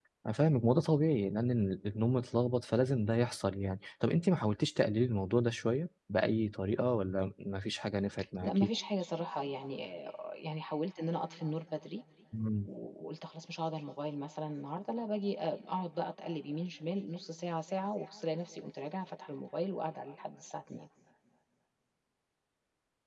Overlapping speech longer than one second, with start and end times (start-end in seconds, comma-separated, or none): none